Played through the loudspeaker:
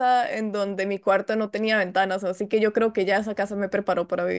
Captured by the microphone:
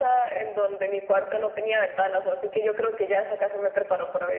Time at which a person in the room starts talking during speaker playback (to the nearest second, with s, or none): none